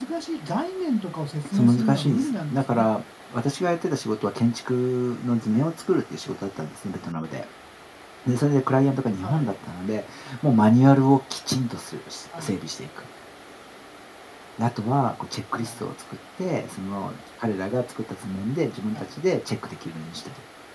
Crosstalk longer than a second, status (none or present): present